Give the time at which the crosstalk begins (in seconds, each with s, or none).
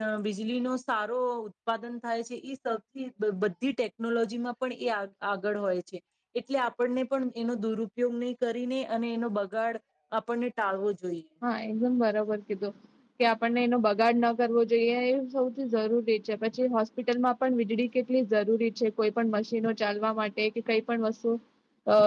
none